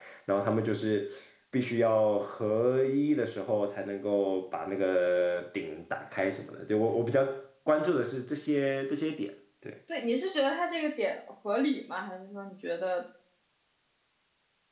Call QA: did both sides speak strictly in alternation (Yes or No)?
Yes